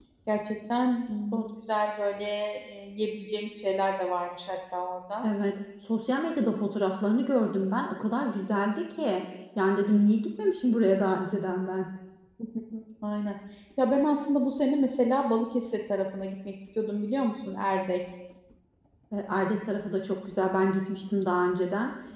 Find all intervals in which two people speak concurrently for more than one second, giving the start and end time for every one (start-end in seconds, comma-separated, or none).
none